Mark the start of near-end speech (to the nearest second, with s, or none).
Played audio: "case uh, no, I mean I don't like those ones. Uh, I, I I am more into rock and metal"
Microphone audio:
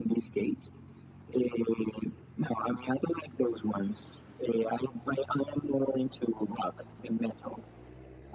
none